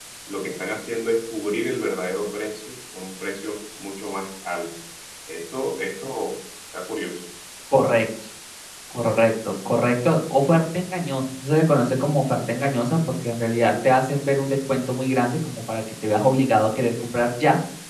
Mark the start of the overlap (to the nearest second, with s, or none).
none